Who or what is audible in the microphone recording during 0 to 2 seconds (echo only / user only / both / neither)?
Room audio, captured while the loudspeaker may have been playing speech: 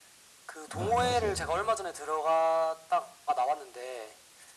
both